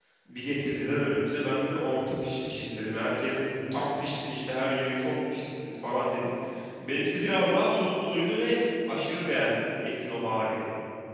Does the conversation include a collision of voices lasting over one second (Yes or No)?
No